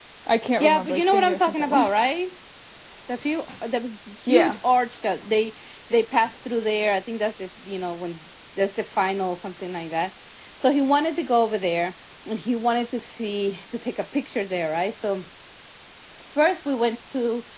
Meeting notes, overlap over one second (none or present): present